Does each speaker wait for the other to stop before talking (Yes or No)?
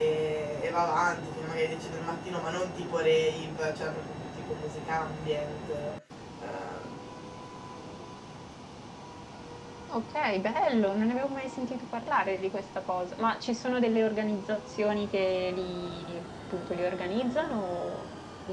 Yes